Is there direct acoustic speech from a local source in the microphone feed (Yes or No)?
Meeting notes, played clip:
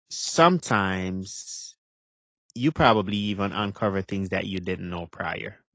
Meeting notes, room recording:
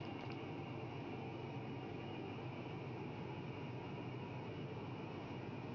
No